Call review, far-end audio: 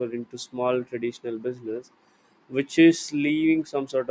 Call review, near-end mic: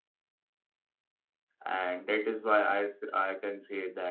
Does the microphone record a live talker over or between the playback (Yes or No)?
Yes